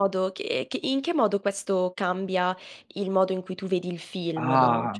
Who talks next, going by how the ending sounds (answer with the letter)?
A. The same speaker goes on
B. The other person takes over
B